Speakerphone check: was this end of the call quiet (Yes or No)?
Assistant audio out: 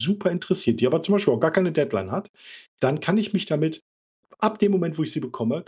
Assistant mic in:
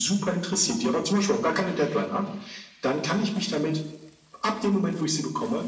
Yes